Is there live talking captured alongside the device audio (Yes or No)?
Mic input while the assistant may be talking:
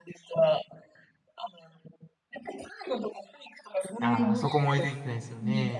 Yes